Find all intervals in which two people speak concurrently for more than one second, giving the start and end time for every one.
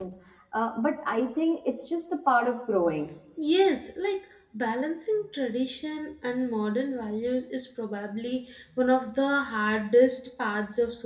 none

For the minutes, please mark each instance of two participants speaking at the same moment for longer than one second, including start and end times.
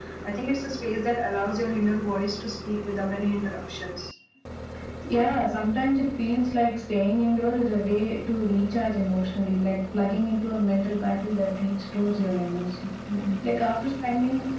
none

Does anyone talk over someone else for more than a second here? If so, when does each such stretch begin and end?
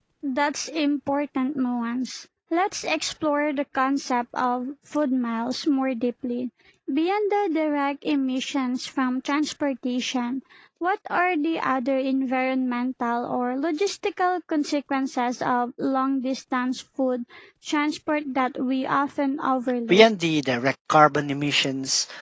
none

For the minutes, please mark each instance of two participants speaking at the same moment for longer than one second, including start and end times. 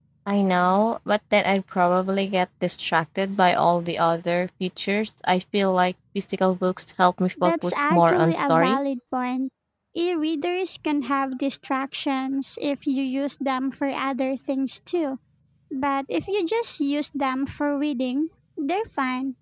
7.4-8.8

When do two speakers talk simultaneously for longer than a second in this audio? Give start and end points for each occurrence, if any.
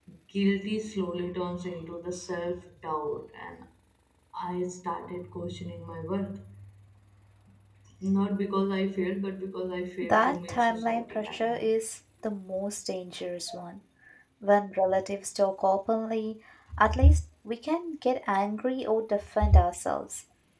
10.0-11.7

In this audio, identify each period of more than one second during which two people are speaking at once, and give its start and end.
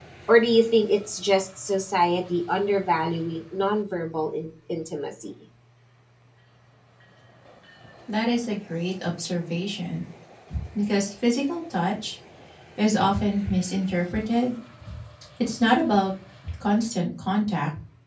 none

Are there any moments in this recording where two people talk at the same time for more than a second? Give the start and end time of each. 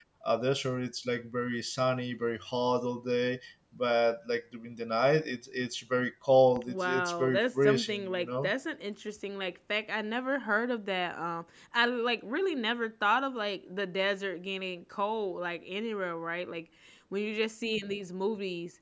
6.7-8.5

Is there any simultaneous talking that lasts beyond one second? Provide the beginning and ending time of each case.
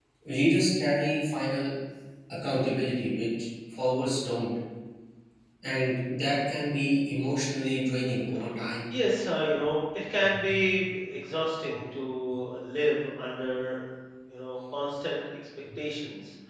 none

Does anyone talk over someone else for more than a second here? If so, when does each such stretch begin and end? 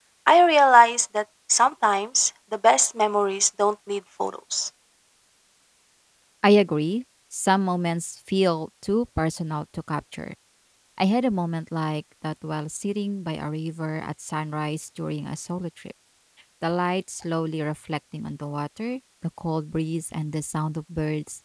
none

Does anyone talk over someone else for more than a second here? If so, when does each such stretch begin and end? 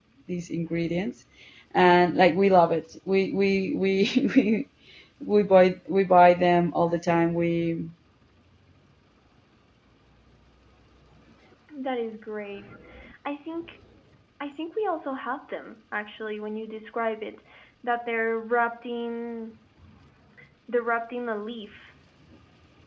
none

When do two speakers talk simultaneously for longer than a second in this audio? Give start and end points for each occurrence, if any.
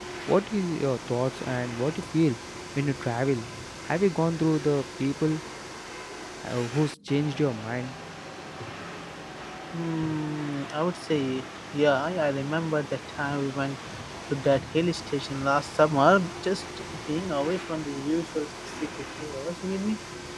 none

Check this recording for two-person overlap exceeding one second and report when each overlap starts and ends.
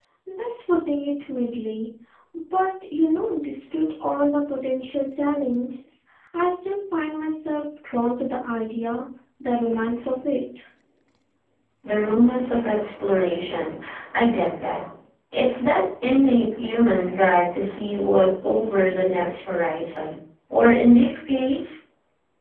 none

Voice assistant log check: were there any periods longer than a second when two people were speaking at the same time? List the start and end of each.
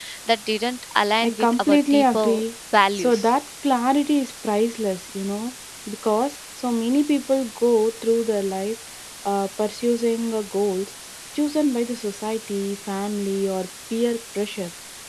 1.2-2.4

